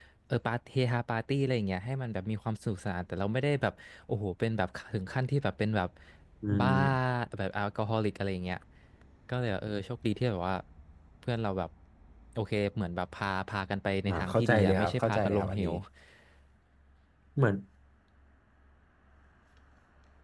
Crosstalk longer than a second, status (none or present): present